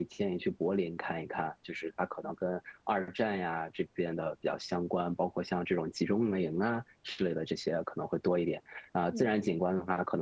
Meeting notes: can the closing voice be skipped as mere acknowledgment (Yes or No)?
Yes